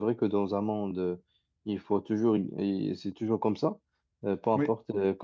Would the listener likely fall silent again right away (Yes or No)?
Yes